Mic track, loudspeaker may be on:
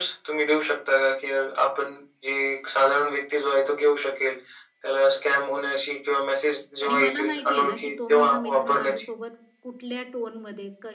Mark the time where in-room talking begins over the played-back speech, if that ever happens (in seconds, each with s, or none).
6.8 s